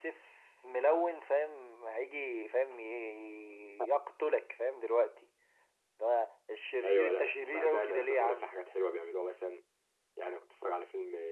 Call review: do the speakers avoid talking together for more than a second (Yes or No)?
No